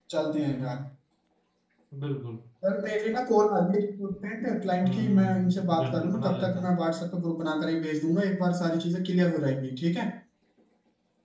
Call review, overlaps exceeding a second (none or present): present